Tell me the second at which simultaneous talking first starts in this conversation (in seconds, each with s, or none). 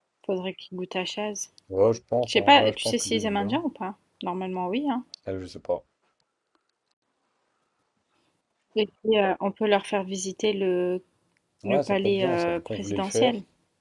2.3 s